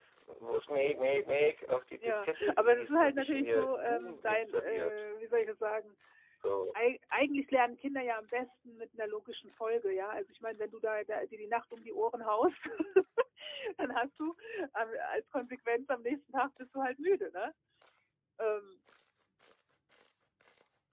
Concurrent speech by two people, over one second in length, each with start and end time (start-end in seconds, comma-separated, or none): 2.0-4.9